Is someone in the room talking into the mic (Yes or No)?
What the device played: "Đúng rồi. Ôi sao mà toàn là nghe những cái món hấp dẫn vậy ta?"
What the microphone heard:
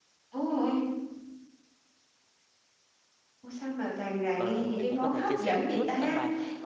Yes